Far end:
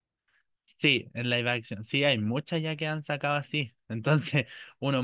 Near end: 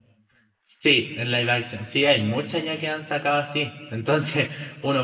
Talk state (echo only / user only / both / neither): echo only